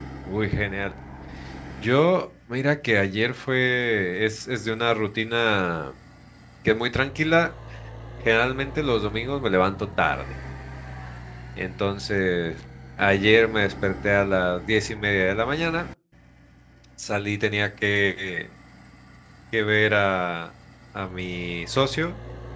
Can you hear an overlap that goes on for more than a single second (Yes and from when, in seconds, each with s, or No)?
No